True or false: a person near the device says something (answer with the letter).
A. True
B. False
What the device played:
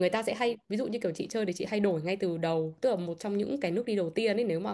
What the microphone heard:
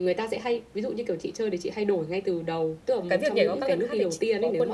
A